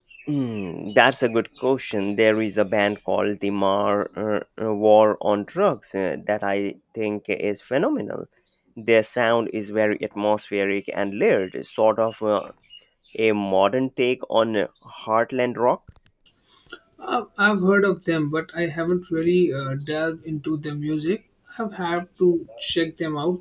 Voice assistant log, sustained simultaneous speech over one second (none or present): none